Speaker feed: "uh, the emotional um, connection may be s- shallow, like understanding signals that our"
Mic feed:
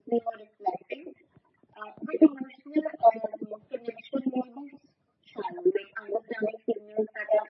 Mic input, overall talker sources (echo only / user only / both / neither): echo only